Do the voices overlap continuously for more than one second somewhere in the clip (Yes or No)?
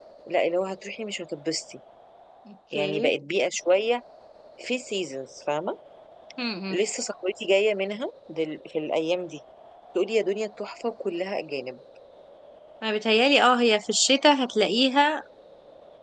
No